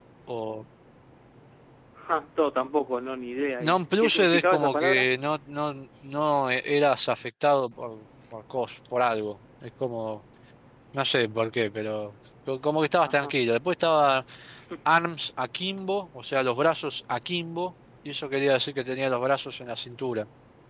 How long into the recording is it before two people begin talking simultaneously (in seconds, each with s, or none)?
3.6 s